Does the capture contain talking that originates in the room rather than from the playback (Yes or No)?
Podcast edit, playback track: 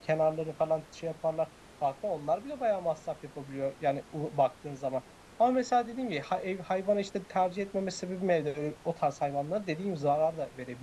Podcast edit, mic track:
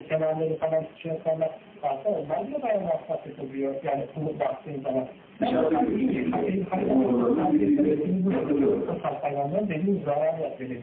Yes